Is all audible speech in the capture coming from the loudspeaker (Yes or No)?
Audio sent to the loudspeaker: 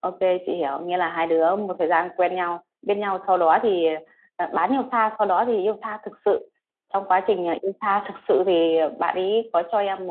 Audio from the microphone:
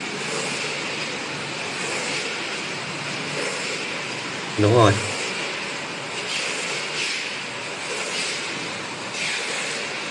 No